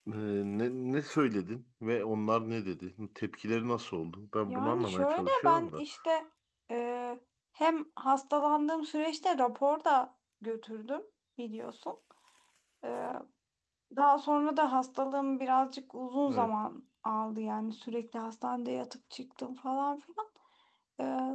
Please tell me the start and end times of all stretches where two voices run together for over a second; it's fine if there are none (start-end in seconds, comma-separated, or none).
4.5-5.8